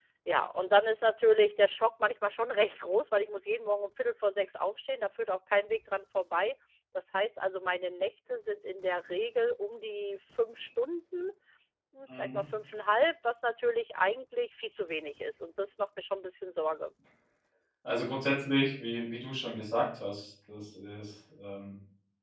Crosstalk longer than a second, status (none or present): none